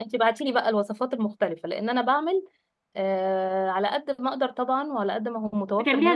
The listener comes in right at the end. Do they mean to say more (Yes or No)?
Yes